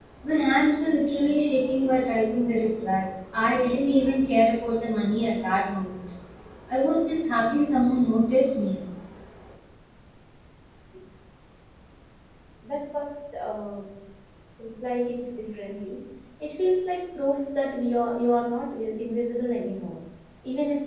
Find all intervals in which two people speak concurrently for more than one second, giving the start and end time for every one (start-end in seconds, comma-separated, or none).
none